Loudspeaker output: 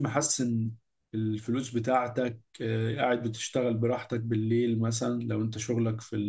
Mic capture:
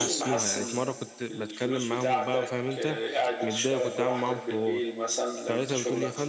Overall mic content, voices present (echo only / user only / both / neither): both